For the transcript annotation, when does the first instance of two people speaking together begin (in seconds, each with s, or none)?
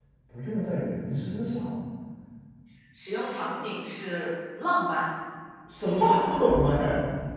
none